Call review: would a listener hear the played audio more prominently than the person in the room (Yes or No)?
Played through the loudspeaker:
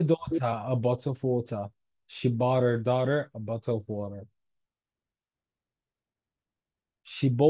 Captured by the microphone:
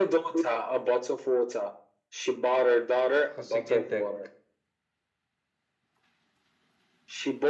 Yes